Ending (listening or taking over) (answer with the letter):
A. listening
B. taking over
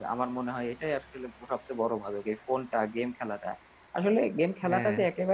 A